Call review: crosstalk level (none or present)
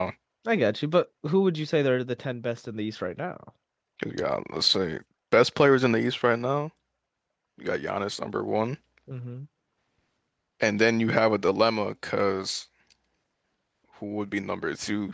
none